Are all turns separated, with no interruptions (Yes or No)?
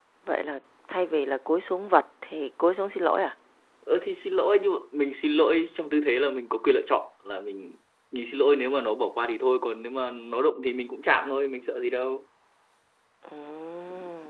Yes